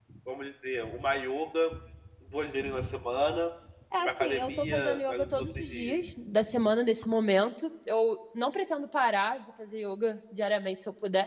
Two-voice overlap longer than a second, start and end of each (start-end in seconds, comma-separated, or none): 4.0-6.0